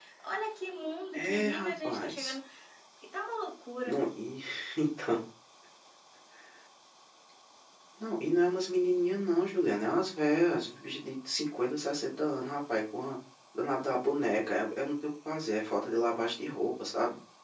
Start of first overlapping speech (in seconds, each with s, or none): 1.1 s